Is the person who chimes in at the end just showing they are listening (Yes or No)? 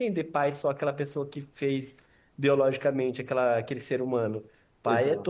Yes